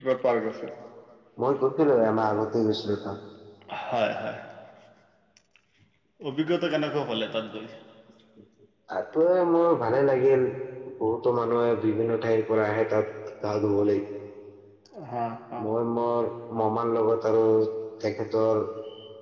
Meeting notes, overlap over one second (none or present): none